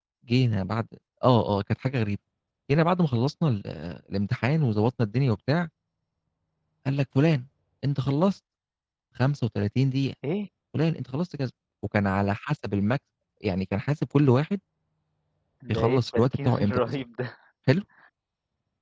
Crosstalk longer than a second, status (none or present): present